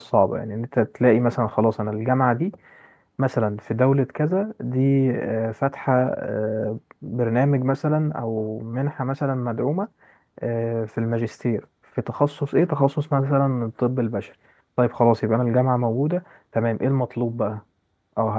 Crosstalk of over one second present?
No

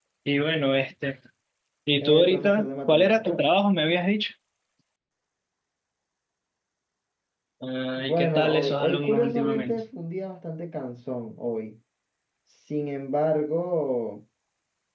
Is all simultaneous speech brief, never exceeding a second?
No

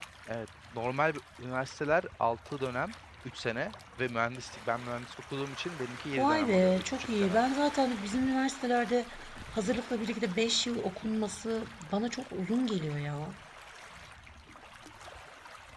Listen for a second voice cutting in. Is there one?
Yes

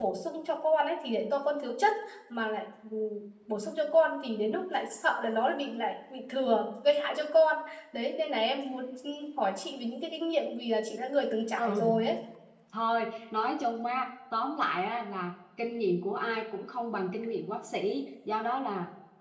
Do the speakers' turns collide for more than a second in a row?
No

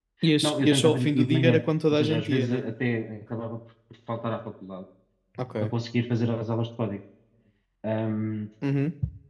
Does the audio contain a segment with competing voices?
Yes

